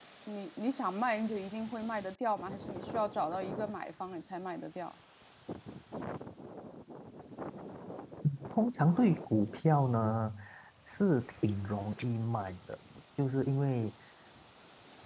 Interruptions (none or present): none